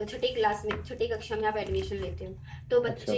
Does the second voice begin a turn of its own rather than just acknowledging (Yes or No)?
No